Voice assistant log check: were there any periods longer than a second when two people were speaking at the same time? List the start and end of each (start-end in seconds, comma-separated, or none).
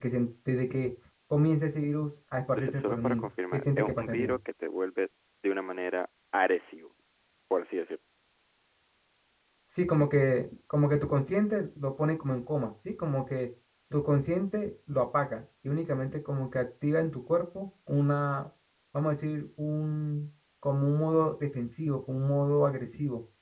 2.5-4.3